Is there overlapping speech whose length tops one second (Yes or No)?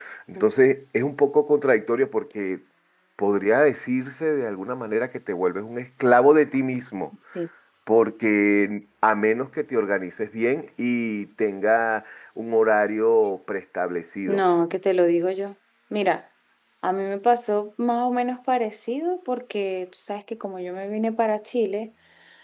No